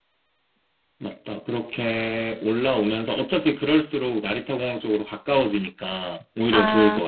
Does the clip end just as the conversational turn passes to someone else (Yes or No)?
Yes